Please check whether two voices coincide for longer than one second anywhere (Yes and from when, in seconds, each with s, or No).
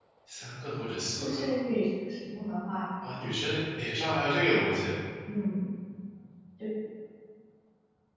No